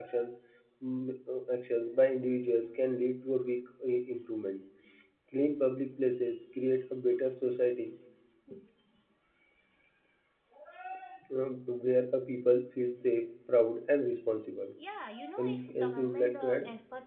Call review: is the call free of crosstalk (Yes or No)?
No